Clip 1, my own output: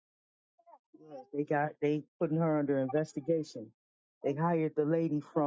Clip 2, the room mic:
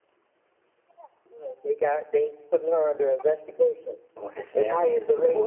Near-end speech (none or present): present